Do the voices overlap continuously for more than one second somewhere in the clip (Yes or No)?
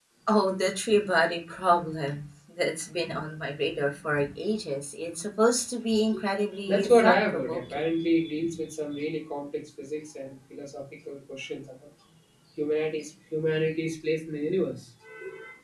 Yes